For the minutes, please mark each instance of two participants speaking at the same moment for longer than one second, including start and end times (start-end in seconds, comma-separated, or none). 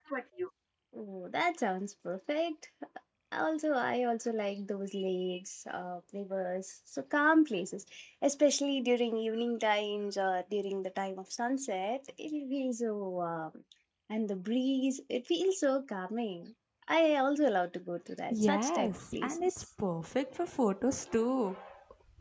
18.3-19.6